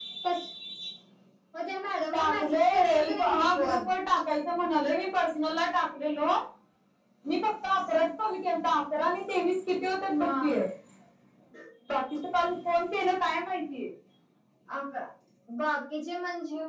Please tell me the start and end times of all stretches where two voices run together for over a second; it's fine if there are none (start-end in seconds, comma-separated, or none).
2.1-3.8